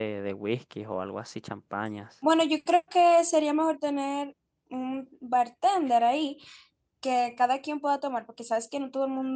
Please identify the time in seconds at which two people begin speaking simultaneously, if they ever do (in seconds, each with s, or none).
none